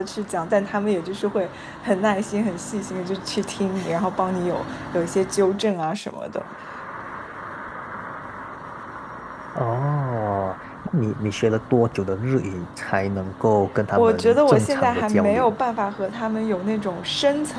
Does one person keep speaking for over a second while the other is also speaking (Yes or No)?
Yes